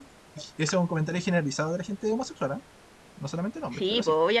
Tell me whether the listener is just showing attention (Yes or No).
No